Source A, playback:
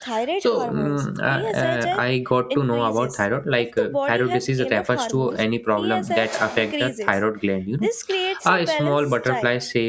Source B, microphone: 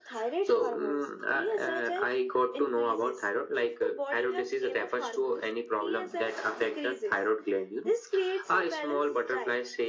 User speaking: No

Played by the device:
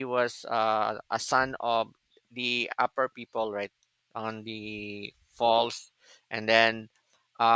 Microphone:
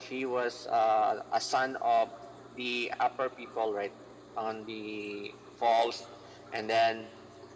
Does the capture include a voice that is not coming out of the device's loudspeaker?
No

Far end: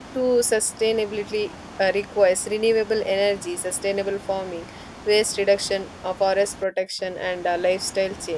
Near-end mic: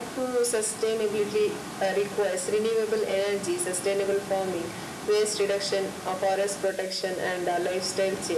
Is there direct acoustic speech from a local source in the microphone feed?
No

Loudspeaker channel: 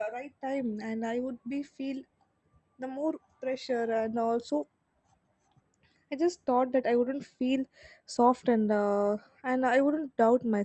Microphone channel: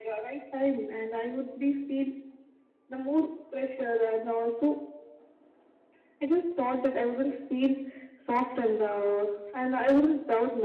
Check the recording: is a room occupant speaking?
No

